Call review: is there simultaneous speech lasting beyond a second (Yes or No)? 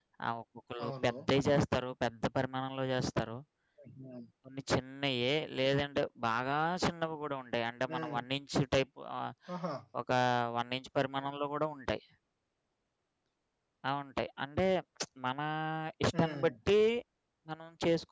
No